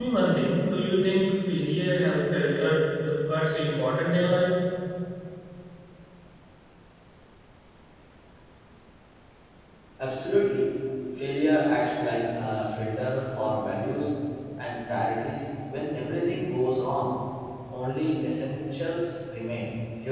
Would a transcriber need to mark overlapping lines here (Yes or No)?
No